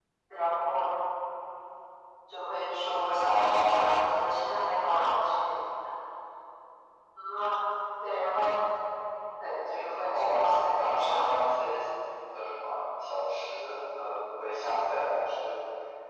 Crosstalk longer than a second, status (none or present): present